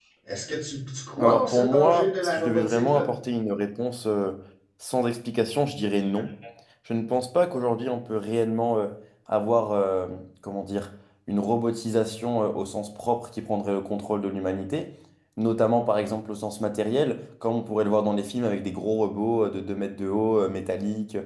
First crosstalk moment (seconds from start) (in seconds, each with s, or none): 1.2 s